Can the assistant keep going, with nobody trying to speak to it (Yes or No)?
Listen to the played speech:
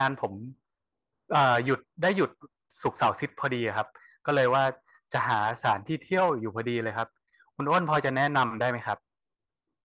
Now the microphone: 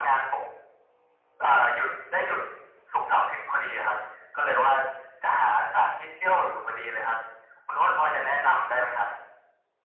Yes